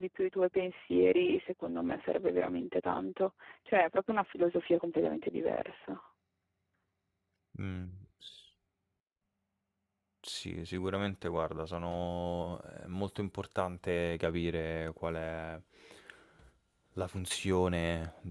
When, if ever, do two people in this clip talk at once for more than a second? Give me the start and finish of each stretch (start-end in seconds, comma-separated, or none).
none